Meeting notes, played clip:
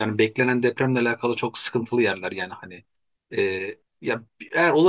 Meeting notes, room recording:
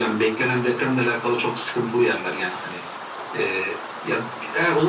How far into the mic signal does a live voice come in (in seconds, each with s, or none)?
none